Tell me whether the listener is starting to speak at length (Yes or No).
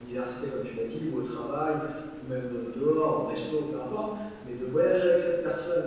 No